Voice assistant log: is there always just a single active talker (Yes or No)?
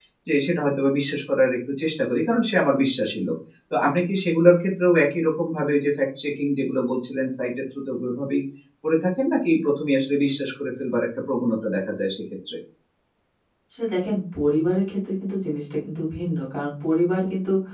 Yes